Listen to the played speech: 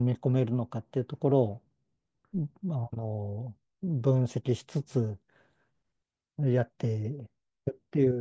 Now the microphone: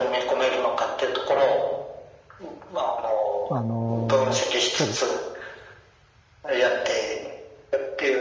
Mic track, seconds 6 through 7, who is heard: echo only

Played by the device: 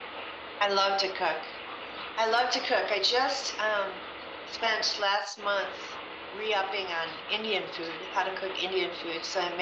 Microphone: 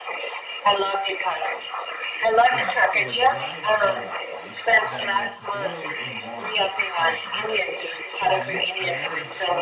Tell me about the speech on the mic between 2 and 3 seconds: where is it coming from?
both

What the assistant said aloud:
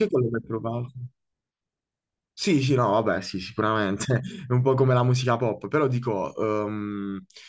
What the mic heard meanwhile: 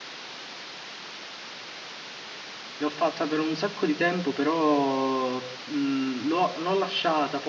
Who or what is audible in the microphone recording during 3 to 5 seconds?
user only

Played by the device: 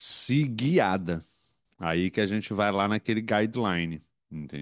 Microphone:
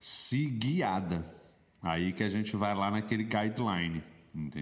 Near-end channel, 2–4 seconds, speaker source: echo only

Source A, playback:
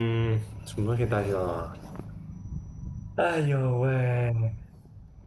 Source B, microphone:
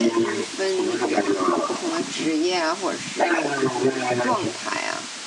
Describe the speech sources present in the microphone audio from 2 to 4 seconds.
both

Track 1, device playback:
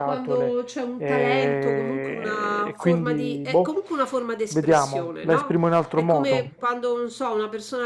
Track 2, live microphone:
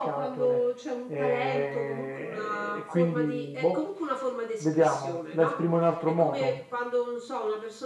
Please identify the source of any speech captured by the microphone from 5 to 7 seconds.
echo only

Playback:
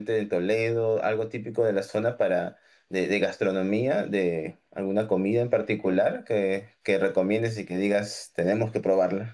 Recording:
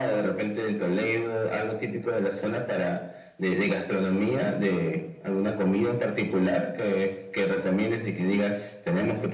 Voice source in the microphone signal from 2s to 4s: echo only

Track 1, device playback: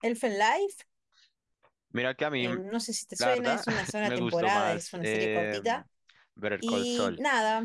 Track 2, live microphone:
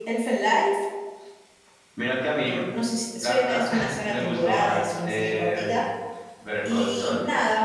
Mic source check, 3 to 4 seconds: echo only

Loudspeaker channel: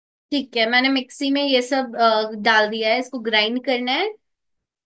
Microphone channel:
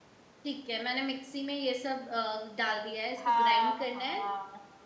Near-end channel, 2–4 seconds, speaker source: both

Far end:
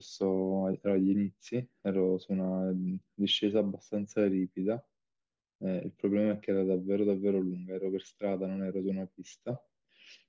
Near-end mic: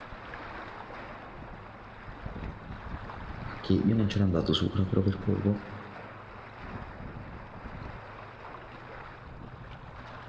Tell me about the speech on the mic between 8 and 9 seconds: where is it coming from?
neither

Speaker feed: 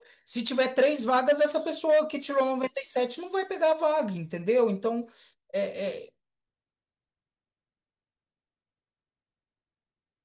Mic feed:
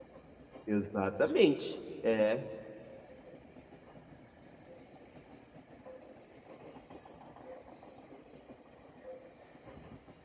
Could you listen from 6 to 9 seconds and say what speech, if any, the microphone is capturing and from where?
neither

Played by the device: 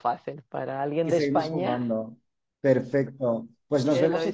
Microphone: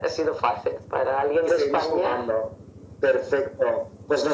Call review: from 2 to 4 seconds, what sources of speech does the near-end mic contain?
echo only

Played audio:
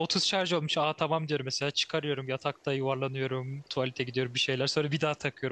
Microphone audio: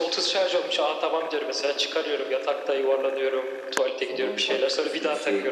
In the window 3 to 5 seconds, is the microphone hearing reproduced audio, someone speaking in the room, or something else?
both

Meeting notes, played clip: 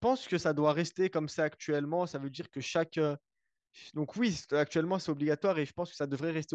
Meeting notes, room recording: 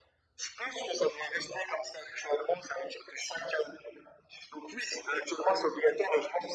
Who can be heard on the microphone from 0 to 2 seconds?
echo only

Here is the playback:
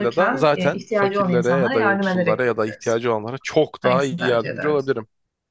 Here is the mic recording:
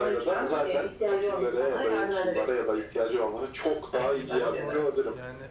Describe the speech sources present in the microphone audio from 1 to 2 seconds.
echo only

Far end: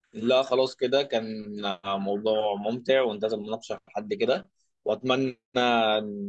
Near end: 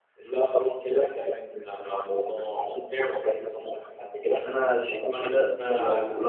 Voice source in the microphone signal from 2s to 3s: echo only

